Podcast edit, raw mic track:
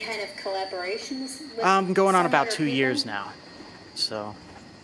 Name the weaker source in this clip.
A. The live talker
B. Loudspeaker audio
B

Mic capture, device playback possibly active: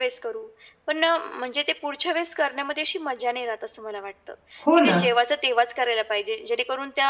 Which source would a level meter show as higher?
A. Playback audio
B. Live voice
B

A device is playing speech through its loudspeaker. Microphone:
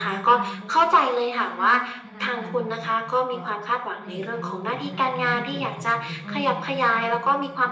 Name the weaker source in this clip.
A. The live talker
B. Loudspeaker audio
A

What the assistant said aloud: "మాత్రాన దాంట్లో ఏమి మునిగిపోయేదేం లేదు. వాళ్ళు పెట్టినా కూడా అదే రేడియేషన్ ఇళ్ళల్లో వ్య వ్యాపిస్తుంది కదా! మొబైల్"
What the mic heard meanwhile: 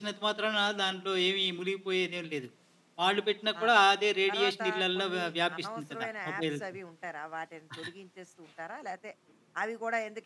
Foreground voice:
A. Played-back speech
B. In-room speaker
A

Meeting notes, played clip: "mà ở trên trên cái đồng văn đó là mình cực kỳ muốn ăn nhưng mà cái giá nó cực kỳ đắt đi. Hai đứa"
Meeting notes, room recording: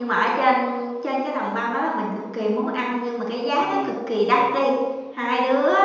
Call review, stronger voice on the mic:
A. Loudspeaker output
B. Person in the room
A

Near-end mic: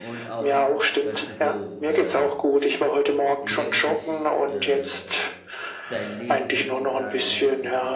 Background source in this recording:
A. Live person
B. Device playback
A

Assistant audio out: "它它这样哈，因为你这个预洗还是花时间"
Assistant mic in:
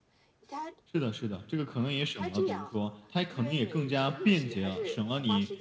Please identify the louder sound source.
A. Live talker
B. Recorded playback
A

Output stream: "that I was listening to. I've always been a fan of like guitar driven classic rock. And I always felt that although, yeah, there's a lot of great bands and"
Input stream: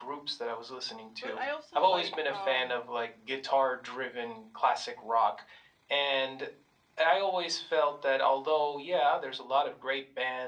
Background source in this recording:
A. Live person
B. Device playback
A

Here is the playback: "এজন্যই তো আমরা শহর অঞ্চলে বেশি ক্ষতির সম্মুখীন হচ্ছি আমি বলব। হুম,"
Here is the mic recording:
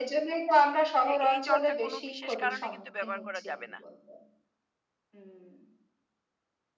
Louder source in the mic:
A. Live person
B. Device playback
B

